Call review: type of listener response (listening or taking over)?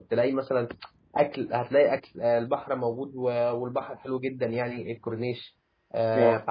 listening